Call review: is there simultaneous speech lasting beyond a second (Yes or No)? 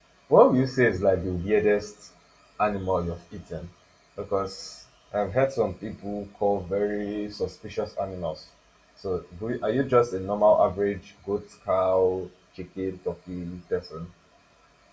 No